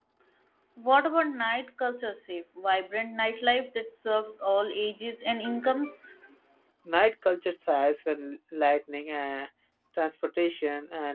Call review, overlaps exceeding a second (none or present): none